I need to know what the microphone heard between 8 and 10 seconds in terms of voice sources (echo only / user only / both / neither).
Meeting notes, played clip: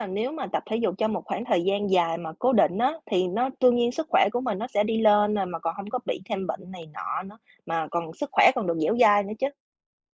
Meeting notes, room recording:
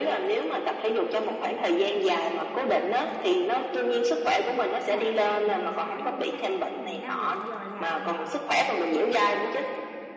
both